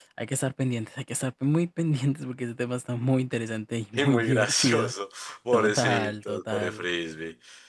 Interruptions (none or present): present